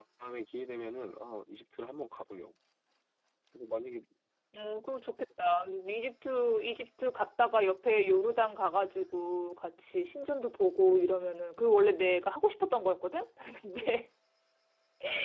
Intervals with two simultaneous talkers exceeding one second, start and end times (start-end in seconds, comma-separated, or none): none